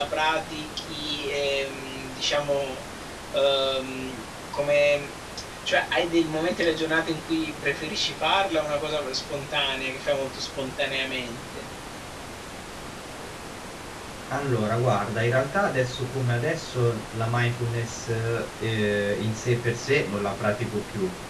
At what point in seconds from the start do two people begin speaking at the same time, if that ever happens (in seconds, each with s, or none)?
none